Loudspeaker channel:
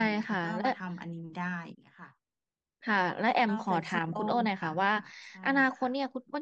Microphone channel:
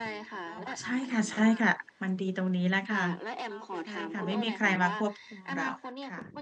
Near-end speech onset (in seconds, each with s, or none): 0.5 s